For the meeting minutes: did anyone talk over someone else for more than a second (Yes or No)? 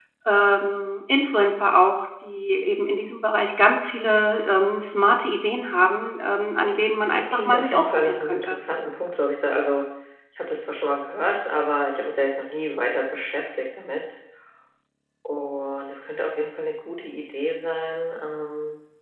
Yes